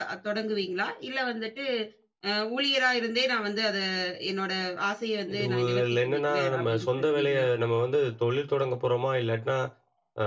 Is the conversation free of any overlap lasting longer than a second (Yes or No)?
No